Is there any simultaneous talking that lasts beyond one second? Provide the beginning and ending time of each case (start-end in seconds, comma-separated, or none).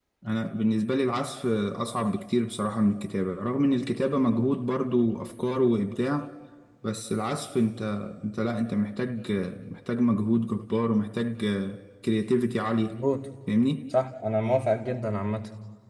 none